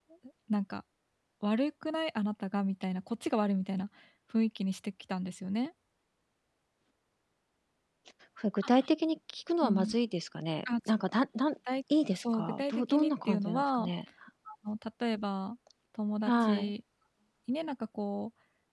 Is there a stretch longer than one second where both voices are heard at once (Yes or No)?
Yes